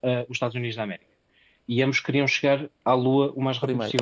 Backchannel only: Yes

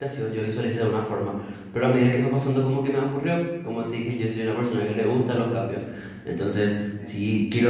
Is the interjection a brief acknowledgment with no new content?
Yes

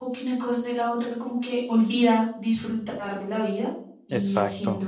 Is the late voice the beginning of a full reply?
No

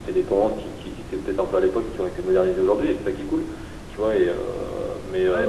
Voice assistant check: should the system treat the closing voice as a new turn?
Yes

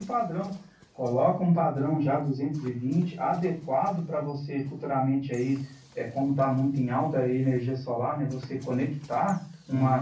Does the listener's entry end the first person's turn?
No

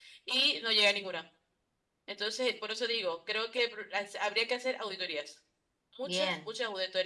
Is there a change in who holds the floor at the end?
No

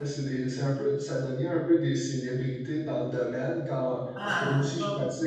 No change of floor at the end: Yes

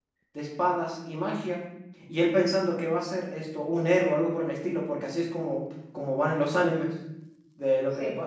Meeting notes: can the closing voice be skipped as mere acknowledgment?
Yes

